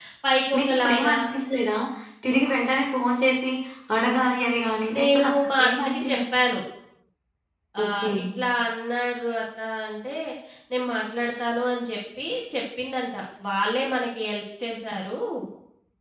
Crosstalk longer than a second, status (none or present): present